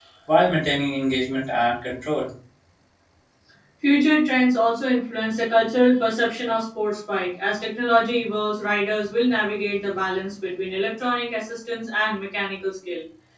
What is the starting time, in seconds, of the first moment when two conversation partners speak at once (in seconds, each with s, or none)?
none